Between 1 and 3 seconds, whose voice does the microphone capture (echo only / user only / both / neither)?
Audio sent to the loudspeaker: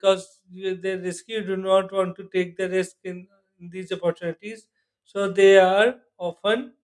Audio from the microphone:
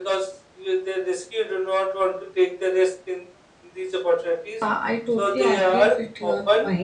echo only